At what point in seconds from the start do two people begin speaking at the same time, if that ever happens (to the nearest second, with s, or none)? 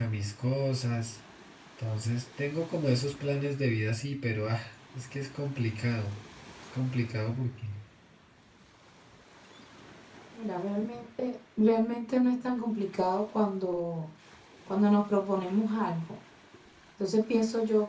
none